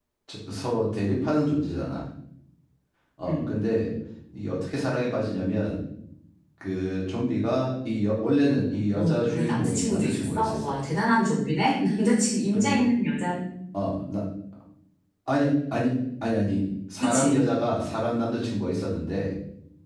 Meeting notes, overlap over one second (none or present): present